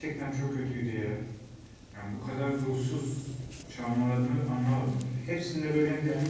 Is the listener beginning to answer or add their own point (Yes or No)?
No